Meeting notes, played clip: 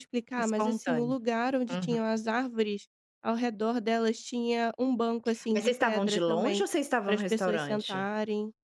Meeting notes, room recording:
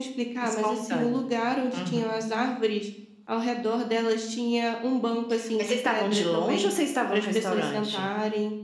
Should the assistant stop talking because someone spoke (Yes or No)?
No